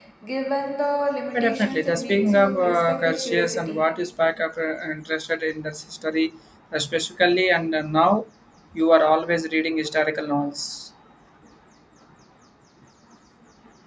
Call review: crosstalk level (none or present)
present